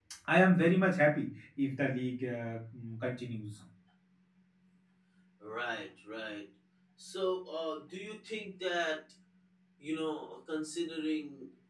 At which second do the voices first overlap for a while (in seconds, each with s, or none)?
none